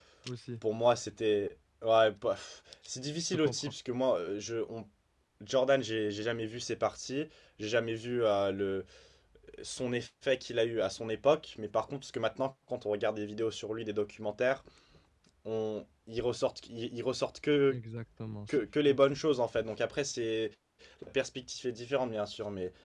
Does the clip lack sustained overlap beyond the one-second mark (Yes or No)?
Yes